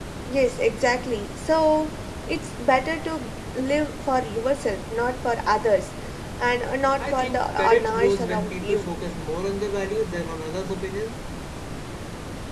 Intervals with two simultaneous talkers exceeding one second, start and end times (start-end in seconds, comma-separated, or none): 7.0-8.9